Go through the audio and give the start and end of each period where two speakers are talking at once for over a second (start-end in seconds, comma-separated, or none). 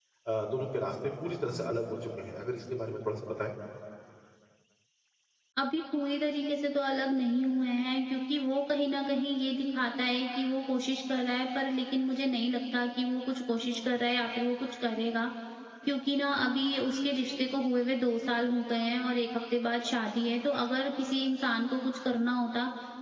none